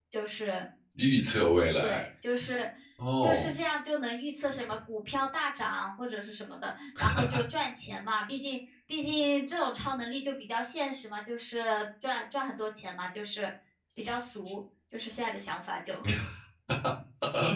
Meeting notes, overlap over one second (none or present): none